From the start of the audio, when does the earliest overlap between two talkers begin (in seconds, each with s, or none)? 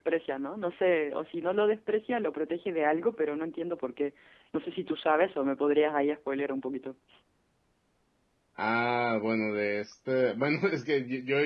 none